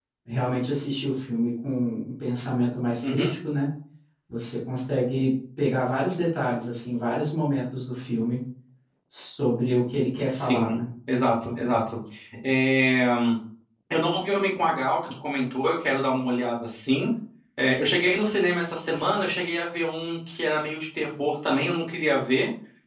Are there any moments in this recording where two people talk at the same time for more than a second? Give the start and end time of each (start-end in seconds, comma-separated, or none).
none